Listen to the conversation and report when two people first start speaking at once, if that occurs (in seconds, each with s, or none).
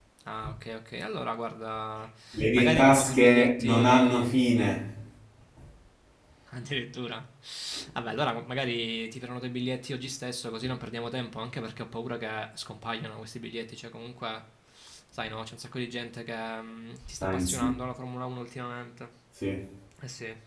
2.6 s